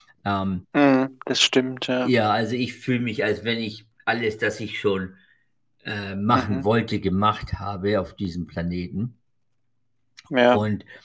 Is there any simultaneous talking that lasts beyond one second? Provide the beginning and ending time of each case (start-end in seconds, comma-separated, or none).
none